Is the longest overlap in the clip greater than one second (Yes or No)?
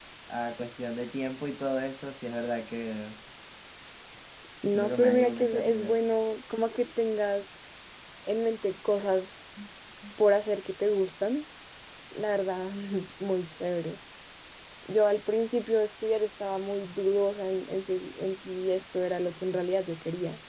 Yes